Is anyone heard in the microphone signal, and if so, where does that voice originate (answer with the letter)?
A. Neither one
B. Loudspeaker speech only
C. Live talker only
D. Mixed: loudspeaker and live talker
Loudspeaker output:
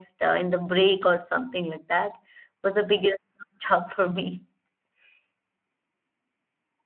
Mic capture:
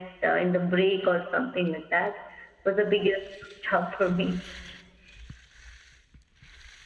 B